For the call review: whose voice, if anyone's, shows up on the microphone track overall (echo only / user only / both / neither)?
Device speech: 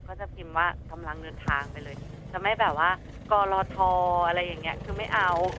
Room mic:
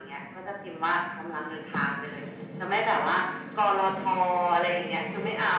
echo only